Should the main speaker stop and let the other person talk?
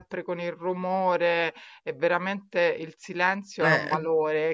No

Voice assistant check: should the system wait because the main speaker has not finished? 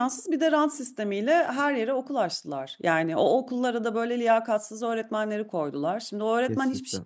Yes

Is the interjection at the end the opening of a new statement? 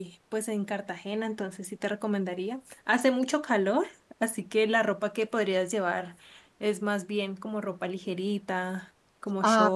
Yes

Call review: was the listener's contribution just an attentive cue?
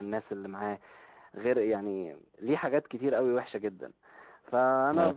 Yes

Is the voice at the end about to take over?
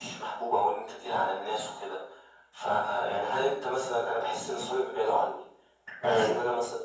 No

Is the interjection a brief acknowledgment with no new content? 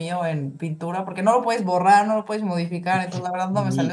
Yes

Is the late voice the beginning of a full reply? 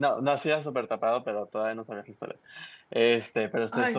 No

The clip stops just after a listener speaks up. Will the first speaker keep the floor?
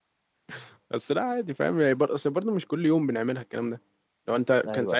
Yes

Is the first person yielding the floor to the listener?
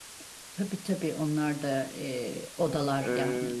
Yes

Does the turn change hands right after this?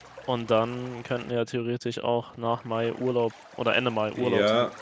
Yes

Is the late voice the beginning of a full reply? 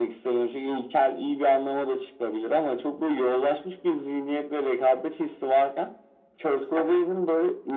No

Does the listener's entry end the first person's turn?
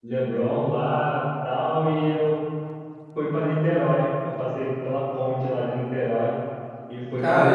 Yes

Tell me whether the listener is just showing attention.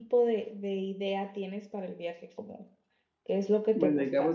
No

